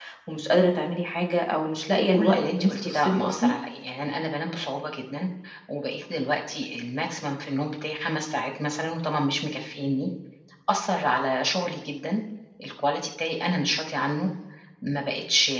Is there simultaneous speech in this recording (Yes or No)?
Yes